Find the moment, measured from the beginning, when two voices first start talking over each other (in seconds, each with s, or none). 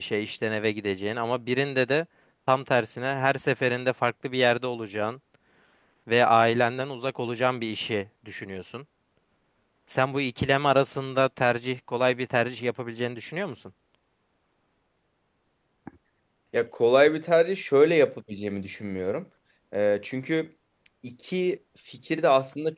none